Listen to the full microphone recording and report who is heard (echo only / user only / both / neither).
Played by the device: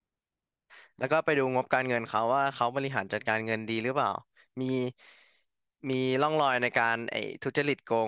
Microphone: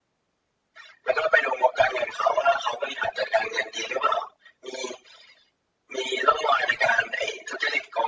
echo only